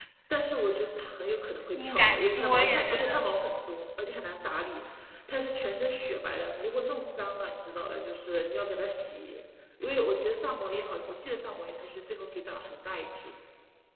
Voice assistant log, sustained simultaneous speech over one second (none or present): present